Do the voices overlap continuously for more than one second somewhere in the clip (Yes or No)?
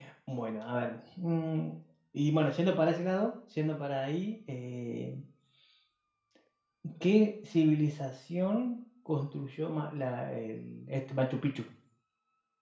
No